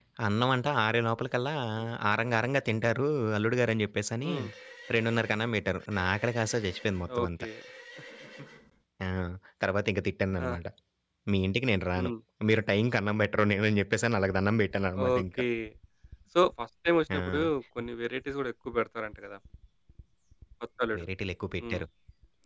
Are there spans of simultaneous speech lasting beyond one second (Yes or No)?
No